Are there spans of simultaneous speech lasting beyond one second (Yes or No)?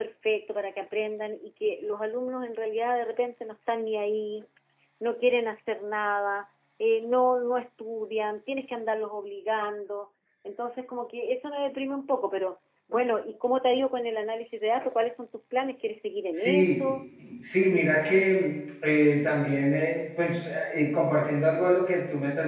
No